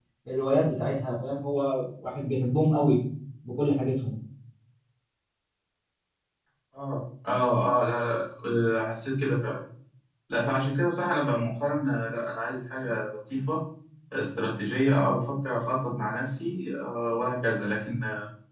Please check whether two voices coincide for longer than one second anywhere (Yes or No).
No